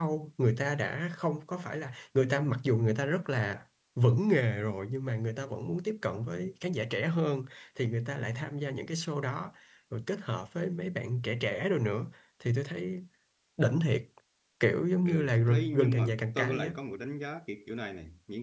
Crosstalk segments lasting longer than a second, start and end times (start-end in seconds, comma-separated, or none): 15.1-16.7